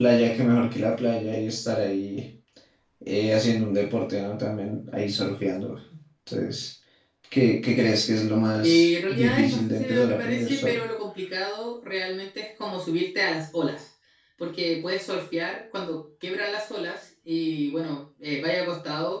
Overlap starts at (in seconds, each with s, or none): 8.6 s